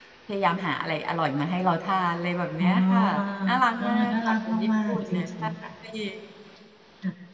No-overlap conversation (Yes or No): No